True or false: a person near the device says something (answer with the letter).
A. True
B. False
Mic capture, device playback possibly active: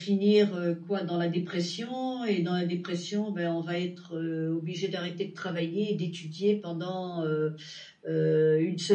B